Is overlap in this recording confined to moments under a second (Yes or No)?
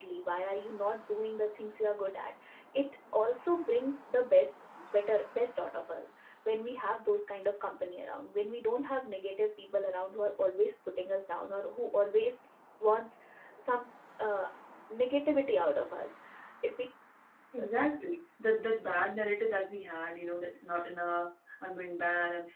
Yes